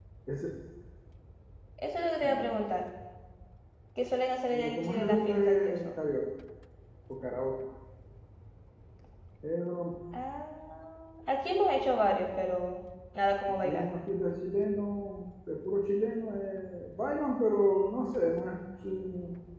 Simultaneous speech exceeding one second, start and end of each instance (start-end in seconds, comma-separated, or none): 4.5-6.0